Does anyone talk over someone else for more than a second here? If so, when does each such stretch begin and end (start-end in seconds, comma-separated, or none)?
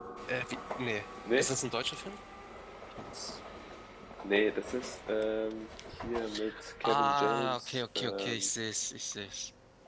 6.8-8.5